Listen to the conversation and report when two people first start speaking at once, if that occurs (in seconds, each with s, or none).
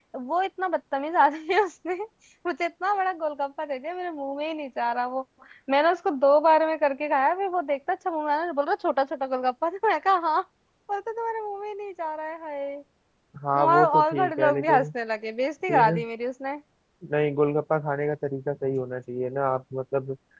13.7 s